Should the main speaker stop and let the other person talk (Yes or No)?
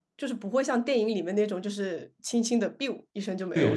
Yes